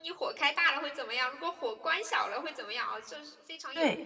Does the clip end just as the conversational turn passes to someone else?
Yes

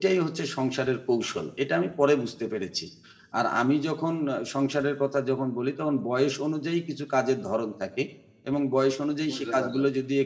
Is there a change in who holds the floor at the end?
No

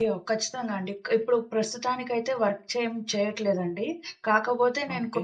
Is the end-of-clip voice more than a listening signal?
No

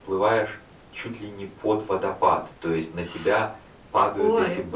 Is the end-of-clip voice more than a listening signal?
No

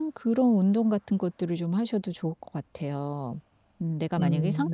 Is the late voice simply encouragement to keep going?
Yes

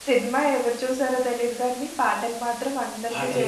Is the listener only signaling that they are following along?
No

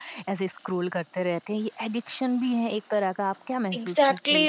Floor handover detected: Yes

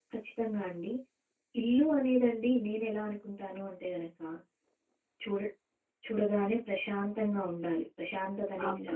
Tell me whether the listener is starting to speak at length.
No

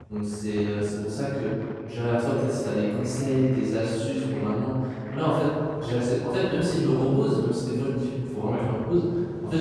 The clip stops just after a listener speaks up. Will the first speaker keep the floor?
Yes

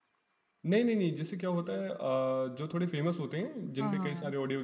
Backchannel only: Yes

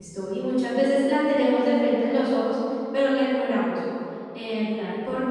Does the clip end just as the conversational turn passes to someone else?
No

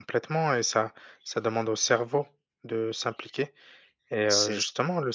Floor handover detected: No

